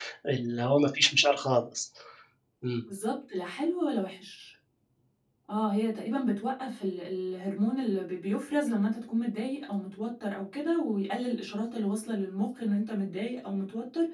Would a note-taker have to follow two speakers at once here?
No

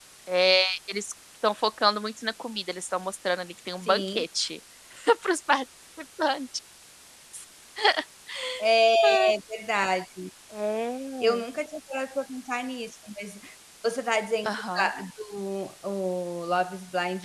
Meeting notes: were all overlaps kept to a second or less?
Yes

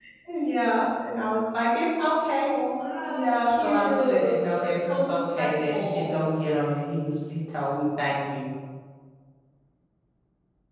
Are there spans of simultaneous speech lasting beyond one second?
Yes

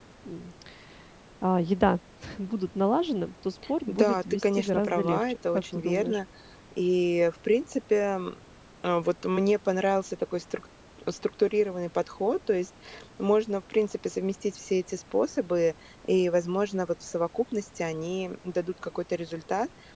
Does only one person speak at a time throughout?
No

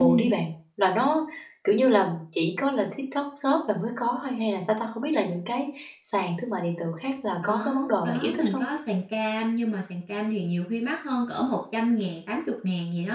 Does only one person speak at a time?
No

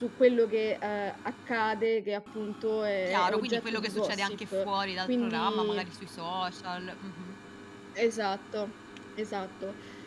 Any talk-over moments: Yes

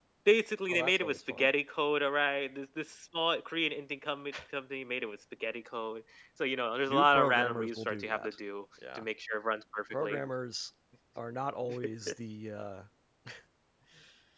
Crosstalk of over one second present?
Yes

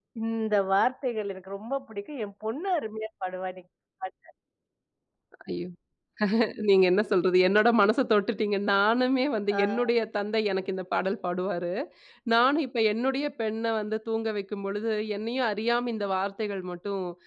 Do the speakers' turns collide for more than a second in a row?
No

